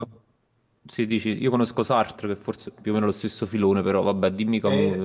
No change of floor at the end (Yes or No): No